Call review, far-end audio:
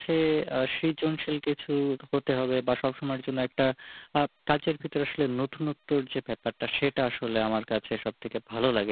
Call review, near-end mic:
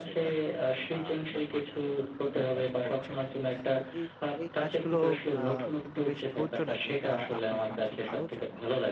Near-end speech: present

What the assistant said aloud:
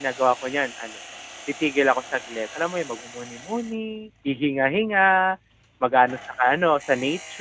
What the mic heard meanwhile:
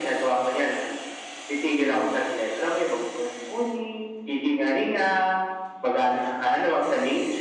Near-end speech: present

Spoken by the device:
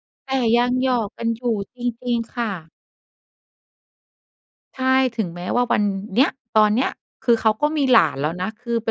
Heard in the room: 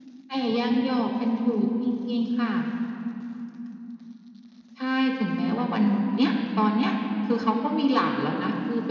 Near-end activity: none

